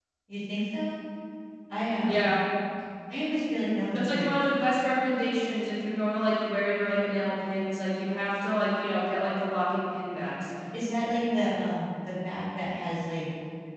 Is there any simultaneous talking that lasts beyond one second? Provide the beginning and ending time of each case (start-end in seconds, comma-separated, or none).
none